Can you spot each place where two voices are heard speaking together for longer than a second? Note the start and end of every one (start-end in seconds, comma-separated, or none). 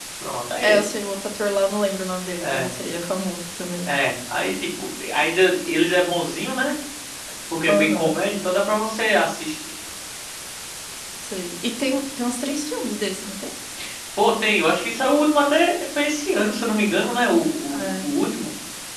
none